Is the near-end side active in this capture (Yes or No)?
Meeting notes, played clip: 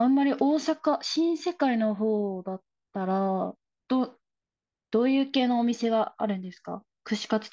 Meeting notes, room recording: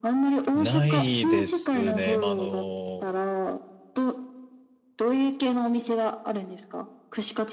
Yes